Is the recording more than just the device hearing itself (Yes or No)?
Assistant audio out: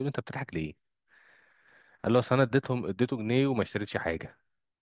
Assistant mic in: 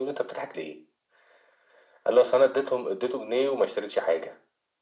No